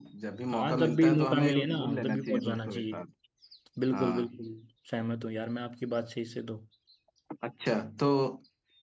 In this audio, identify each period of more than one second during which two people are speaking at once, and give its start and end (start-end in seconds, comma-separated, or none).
0.5-3.0